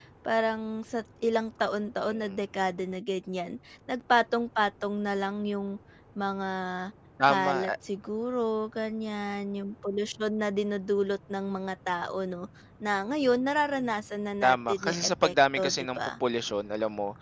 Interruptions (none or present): present